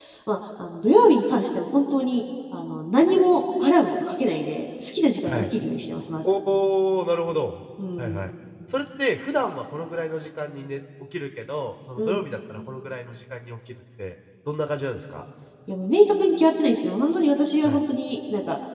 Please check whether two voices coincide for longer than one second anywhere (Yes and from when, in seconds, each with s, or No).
No